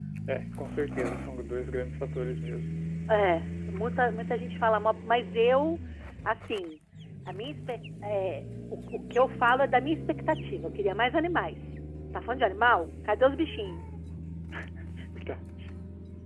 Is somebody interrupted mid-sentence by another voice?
No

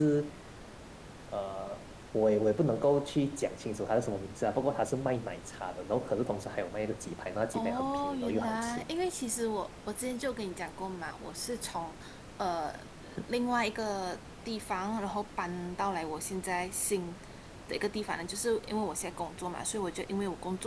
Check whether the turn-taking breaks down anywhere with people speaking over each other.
Yes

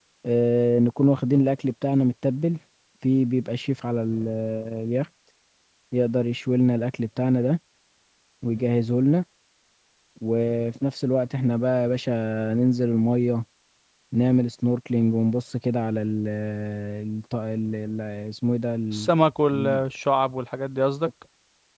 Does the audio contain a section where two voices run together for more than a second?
No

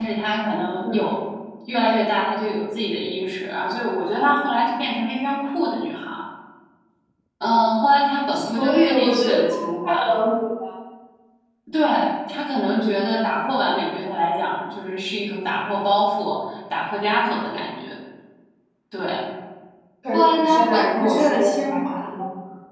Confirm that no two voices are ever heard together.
No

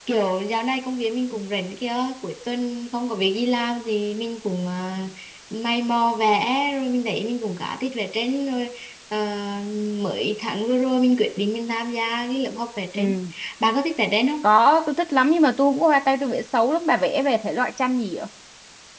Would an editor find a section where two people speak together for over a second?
No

